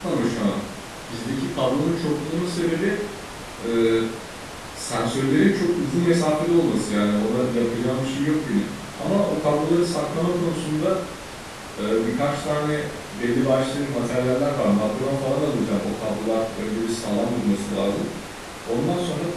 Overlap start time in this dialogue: none

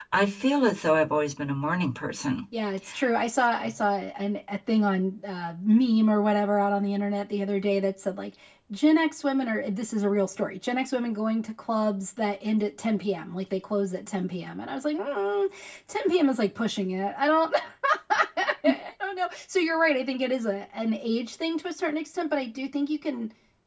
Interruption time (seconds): none

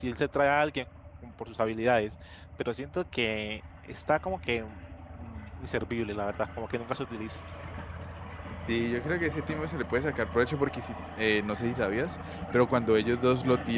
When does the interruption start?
none

